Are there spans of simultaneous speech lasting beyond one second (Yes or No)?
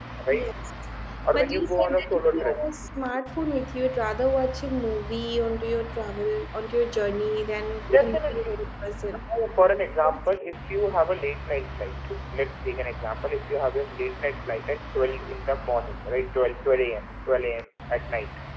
Yes